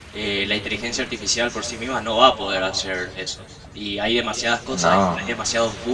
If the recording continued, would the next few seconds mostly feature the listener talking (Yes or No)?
No